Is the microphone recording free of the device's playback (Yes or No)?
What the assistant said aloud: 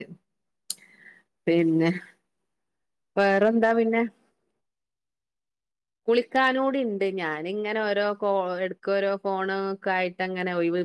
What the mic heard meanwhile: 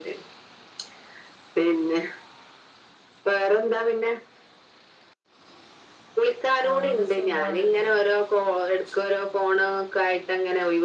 No